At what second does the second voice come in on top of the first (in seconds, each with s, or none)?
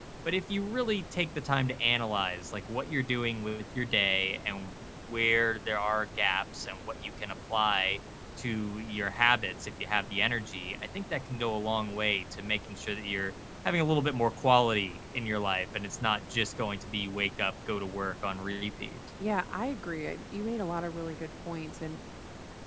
none